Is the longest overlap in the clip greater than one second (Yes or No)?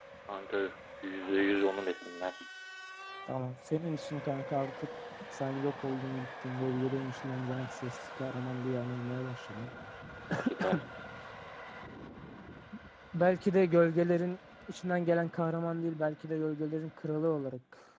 No